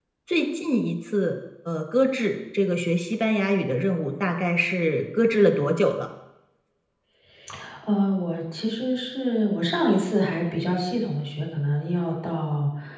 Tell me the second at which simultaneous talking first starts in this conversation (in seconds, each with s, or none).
none